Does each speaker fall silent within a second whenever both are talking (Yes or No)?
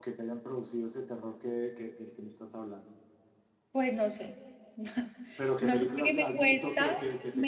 No